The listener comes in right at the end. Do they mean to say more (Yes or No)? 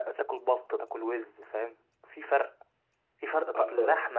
No